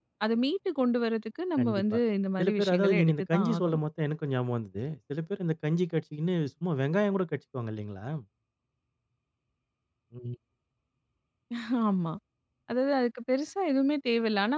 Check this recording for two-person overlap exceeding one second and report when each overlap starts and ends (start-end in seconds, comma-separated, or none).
2.4-3.8